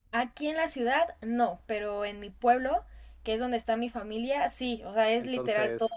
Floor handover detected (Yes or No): Yes